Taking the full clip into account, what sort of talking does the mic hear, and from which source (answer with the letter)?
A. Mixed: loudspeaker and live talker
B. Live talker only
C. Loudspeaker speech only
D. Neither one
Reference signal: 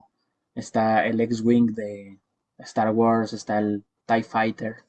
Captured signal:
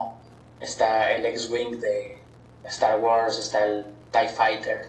C